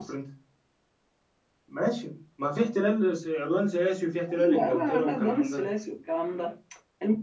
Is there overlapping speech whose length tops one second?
Yes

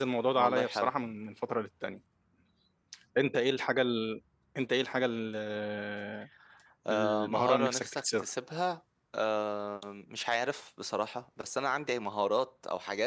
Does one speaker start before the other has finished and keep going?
Yes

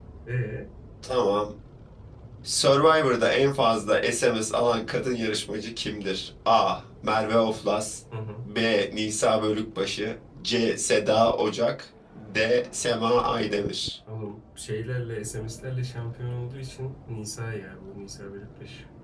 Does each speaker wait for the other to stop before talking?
Yes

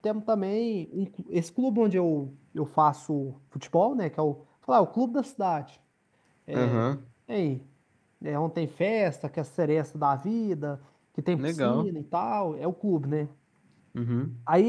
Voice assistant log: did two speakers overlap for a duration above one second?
No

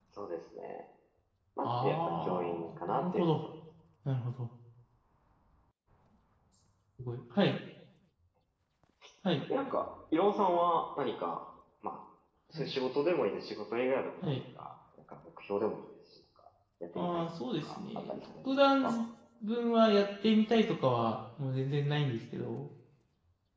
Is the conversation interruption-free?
No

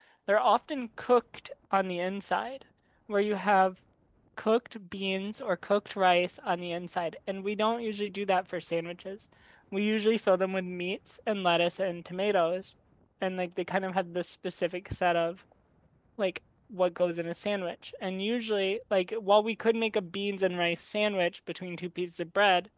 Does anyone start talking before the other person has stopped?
No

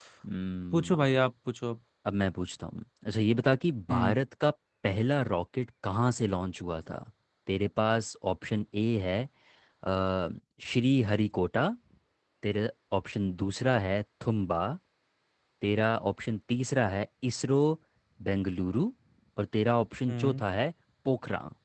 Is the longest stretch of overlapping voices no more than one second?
Yes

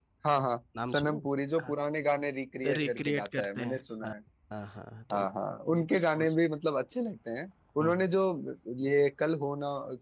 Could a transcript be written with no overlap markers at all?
No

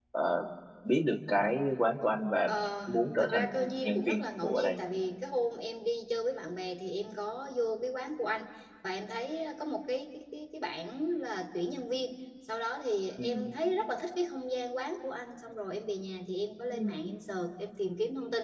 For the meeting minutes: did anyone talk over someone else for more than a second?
Yes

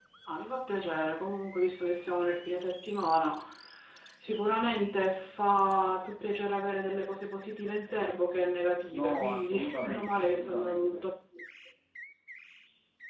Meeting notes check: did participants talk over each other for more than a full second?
Yes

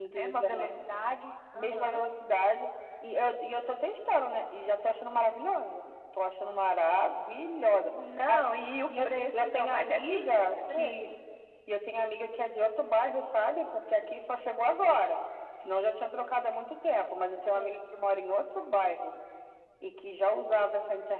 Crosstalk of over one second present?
Yes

